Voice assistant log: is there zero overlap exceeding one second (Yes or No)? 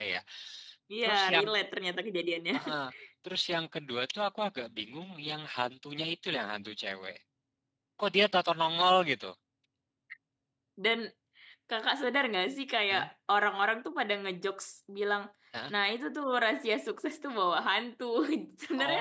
Yes